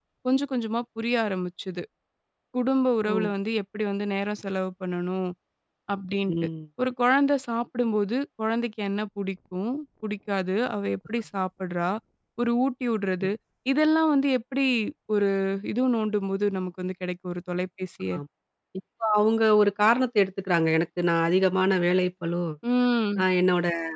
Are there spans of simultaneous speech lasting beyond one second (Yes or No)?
No